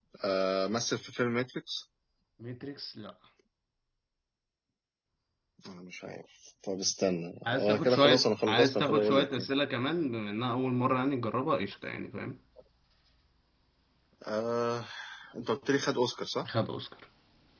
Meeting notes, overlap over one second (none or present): present